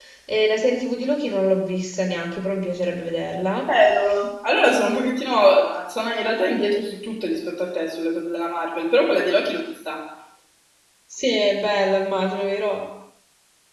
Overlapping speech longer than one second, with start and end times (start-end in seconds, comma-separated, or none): none